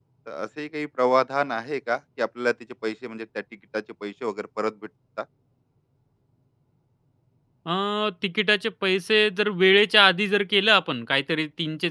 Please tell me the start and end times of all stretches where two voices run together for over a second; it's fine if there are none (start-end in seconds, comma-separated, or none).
none